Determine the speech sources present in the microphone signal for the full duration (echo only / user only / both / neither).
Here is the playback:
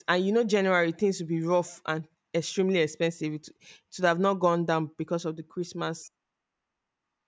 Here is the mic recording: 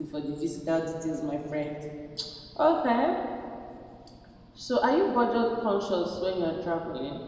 user only